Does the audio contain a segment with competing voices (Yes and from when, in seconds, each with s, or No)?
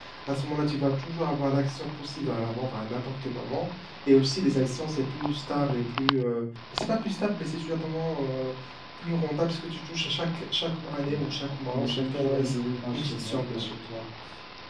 Yes, from 11.0 s